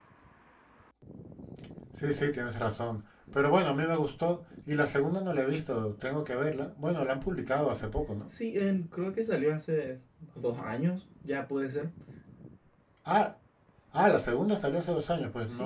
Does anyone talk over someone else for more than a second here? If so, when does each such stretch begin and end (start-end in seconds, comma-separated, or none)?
none